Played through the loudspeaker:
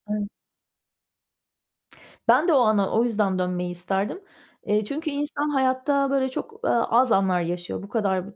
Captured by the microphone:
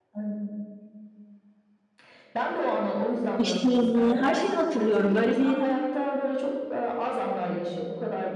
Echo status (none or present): present